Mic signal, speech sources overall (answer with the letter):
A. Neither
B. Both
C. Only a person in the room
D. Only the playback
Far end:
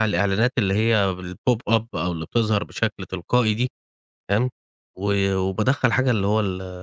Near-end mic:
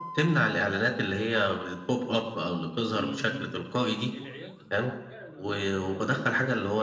B